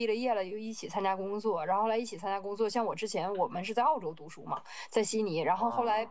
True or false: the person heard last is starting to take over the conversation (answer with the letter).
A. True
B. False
B